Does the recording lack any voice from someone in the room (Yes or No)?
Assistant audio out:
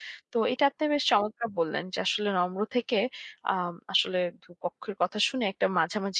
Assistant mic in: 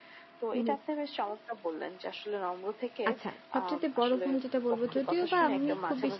No